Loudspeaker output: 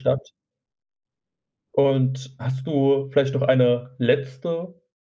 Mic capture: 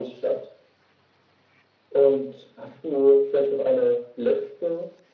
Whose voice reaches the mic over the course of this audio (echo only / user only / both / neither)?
echo only